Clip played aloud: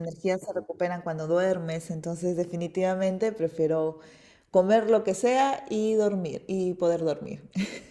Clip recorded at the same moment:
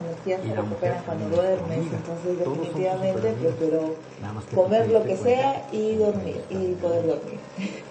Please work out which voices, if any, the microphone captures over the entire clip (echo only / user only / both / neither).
both